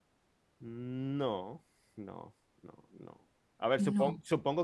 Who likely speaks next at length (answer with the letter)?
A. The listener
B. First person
B